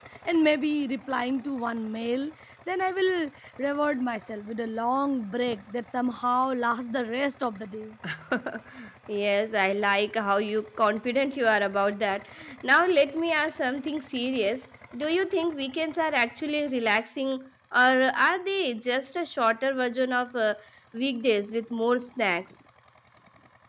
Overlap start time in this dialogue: none

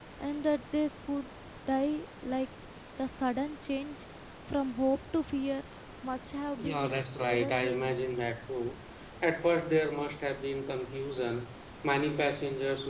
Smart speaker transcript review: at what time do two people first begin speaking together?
6.6 s

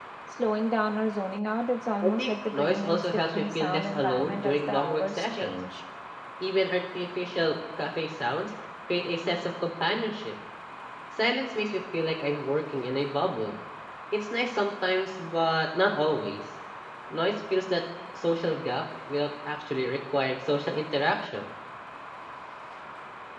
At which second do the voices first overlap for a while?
2.0 s

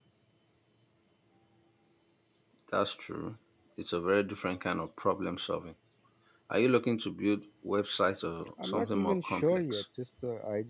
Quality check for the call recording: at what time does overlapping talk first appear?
8.6 s

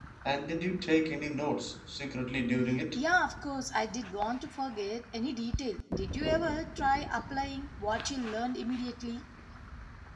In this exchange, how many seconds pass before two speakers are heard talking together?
none

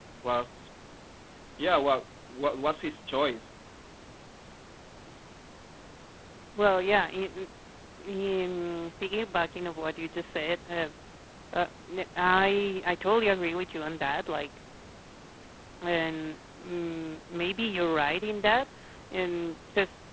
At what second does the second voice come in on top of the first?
none

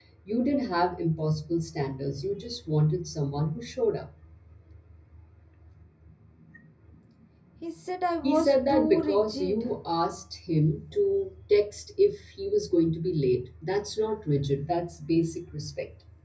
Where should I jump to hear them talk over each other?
8.2 s

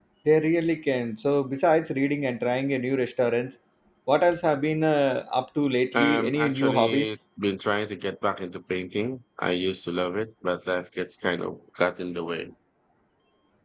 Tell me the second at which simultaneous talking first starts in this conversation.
5.9 s

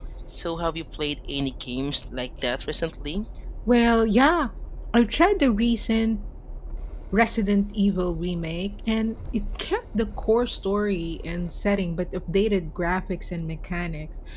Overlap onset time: none

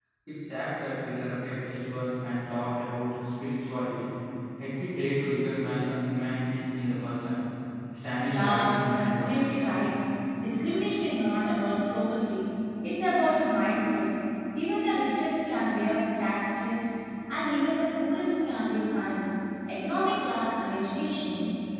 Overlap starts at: 8.2 s

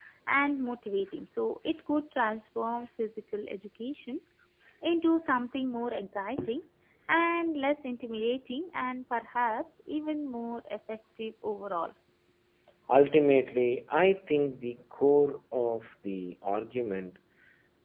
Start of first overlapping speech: none

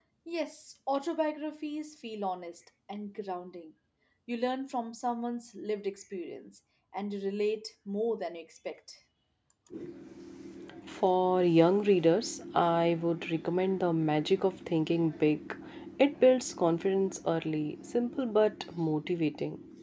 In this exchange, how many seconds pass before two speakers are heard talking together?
none

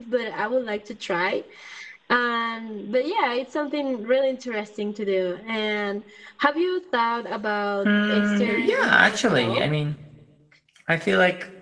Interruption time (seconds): 7.8 s

